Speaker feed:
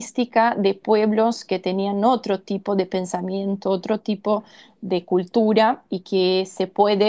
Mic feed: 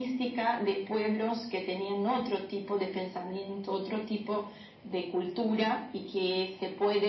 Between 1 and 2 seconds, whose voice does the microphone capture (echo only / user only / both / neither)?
echo only